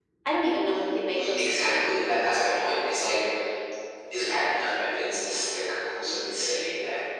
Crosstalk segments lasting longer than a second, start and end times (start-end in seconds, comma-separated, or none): 1.1-2.7